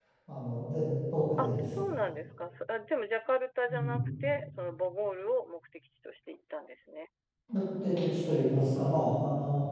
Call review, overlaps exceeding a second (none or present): none